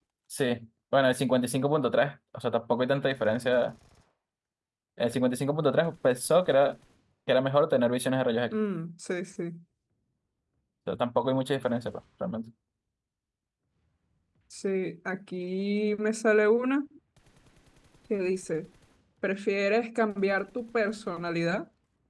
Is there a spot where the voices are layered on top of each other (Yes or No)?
No